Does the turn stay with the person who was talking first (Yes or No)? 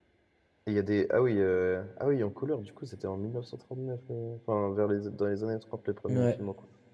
Yes